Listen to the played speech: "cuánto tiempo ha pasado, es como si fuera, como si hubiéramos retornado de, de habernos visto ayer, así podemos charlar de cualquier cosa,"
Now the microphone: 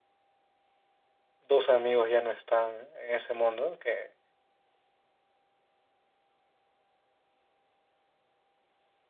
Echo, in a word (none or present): none